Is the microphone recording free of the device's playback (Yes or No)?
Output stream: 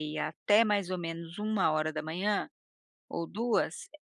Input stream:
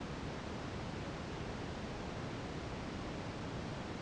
Yes